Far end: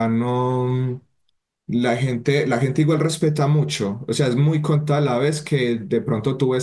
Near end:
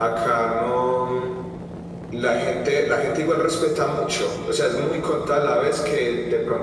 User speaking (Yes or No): No